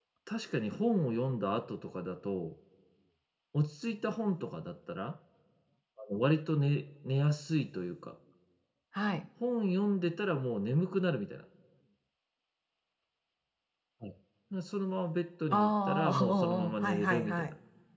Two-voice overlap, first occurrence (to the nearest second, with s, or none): 16 s